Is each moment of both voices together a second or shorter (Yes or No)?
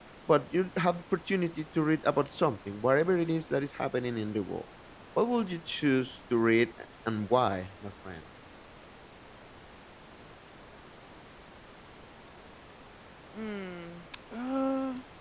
Yes